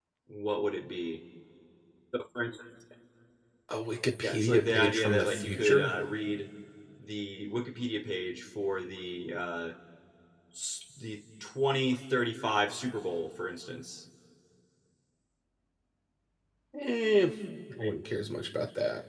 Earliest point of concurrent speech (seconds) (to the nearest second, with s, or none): 4 s